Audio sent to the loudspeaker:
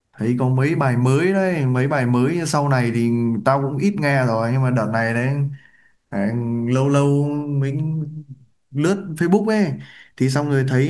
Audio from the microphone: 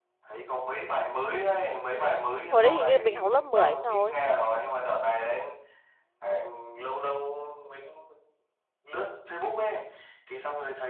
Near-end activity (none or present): present